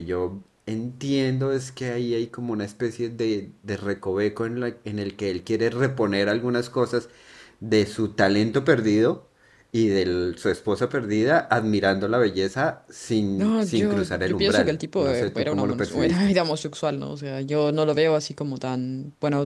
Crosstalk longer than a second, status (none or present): present